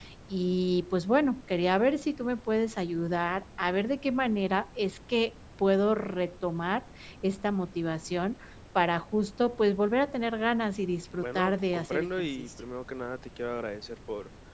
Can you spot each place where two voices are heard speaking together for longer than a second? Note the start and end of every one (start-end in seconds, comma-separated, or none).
11.2-12.5